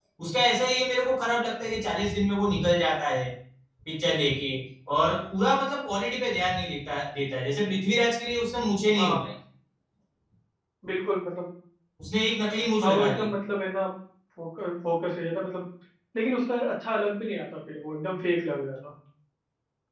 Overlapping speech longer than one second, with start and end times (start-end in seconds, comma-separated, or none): none